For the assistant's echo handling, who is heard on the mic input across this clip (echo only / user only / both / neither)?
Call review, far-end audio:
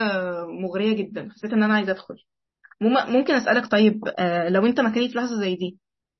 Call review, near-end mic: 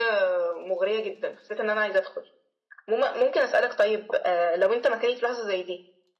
echo only